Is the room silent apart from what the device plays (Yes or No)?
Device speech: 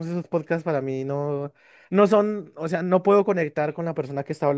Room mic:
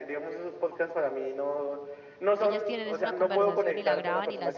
No